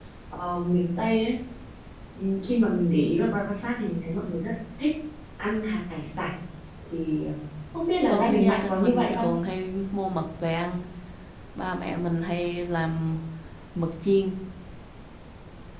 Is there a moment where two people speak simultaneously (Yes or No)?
Yes